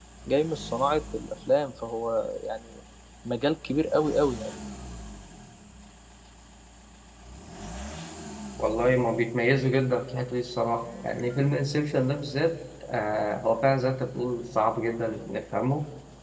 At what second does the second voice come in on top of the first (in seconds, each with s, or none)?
none